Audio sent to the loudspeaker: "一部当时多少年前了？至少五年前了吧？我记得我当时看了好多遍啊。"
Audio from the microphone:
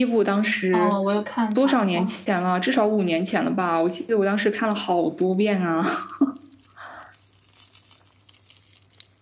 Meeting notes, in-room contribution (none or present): present